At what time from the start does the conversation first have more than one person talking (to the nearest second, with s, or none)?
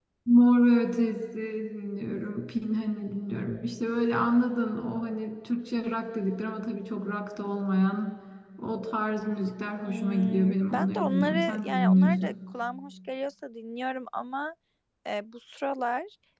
10 s